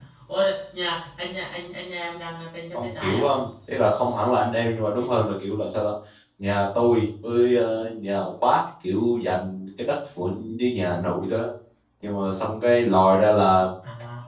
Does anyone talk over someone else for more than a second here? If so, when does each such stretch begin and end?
none

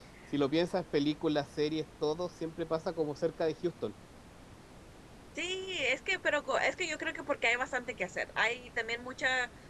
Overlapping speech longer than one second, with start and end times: none

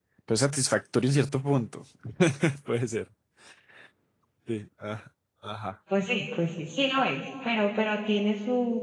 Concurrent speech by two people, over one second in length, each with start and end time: none

